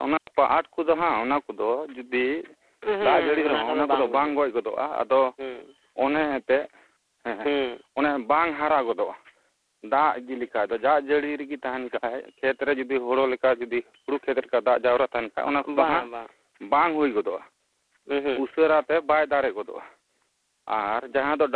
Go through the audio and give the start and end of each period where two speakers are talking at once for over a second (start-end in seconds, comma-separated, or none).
3.0-4.3